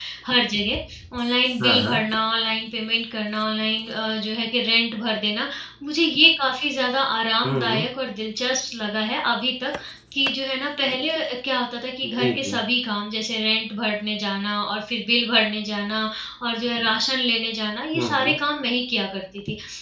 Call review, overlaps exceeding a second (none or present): none